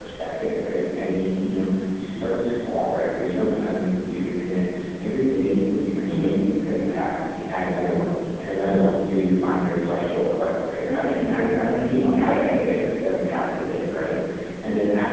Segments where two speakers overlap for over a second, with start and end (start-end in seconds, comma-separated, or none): 10.9-12.6